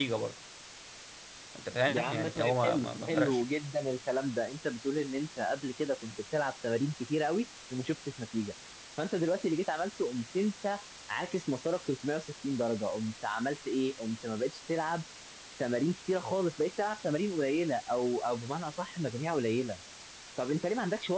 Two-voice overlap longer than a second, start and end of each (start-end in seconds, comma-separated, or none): 1.9-3.4